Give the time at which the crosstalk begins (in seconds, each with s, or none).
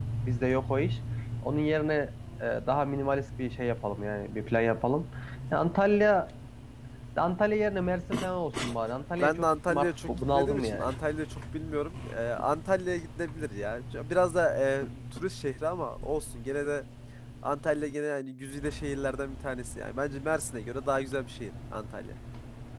9.2 s